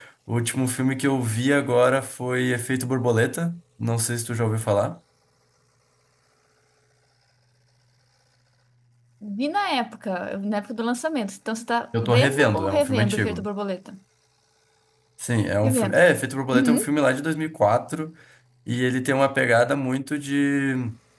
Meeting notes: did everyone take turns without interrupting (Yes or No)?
No